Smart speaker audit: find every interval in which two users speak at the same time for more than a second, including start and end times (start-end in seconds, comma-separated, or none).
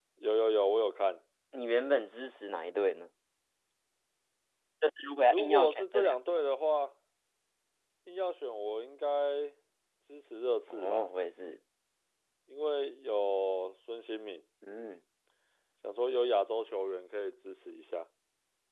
5.3-6.5